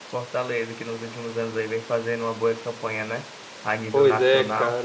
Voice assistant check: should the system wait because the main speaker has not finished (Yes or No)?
No